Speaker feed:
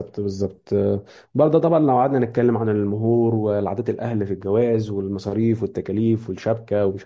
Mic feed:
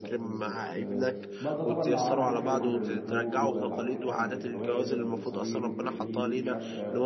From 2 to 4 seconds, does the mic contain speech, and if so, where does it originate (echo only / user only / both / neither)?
both